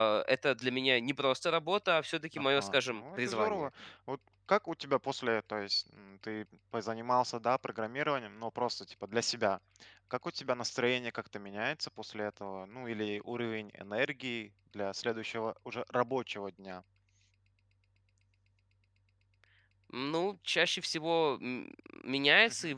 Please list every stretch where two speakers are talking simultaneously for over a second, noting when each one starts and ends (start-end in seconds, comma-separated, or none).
2.4-3.7